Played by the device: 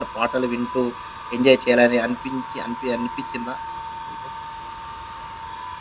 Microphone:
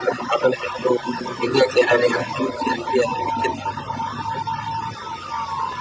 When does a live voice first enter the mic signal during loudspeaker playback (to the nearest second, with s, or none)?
none